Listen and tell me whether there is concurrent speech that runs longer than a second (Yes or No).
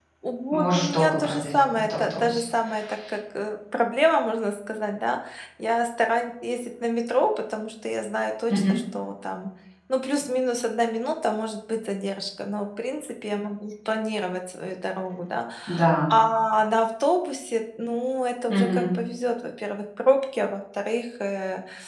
Yes